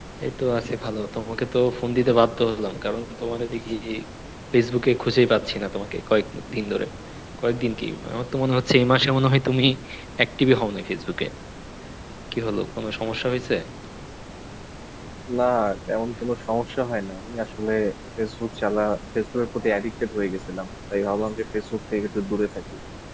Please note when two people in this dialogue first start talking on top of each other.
none

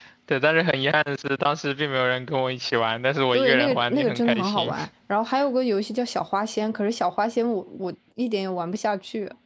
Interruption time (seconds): 3 s

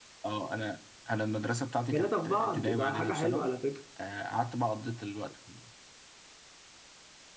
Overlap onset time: 2 s

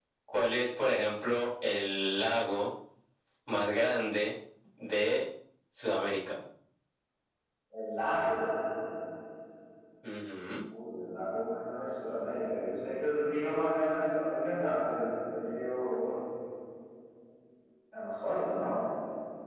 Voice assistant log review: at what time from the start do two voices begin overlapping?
none

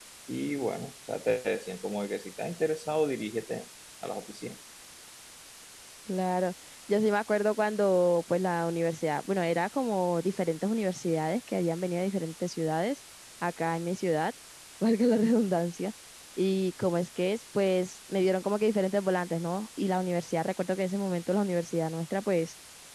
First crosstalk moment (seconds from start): none

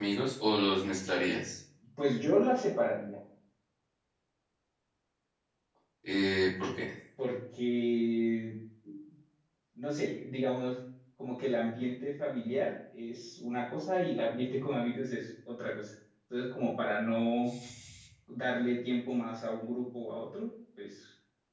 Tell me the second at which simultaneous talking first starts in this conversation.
none

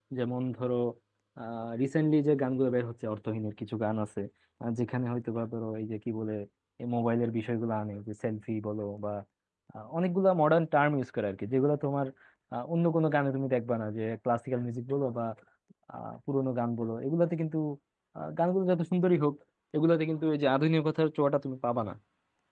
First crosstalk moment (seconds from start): none

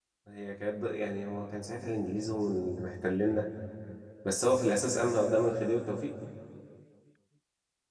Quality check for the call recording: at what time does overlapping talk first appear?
none

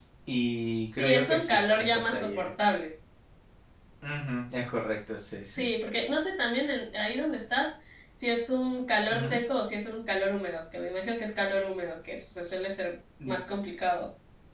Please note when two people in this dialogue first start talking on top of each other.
1 s

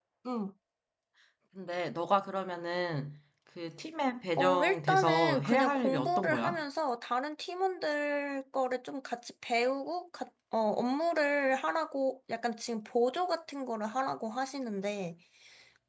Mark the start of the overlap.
4 s

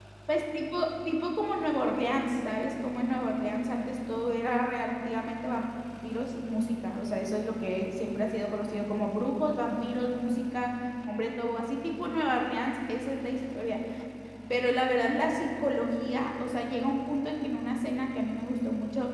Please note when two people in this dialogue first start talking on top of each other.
none

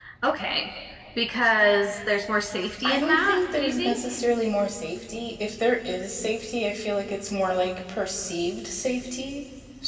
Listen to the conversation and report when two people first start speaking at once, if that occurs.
3 s

